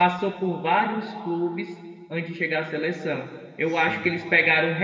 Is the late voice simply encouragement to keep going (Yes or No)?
Yes